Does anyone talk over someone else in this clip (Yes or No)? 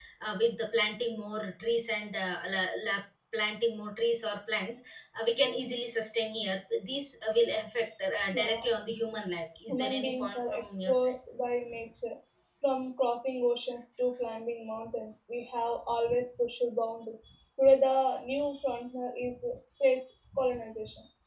Yes